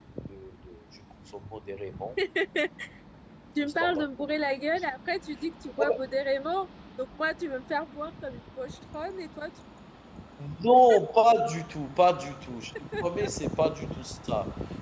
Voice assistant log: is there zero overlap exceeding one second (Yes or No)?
Yes